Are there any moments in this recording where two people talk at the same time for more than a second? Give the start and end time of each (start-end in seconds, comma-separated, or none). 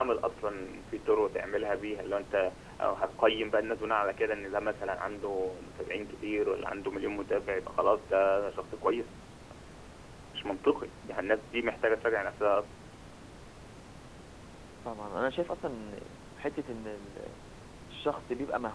none